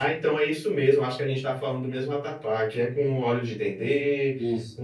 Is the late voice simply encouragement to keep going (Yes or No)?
Yes